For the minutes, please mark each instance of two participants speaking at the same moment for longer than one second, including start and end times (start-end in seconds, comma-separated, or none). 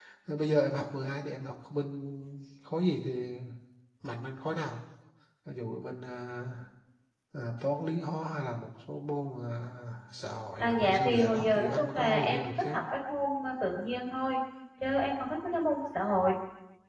10.6-12.8